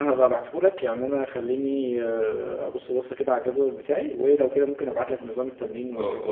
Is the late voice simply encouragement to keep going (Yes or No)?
No